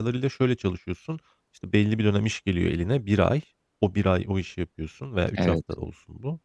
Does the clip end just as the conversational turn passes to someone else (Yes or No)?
No